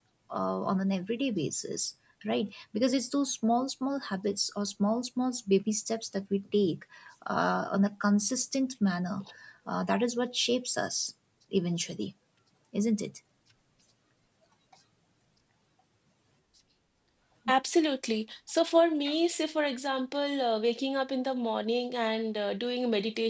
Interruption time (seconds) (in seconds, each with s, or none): none